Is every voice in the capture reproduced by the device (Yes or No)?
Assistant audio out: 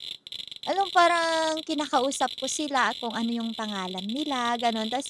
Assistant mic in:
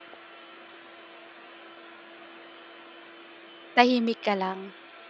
No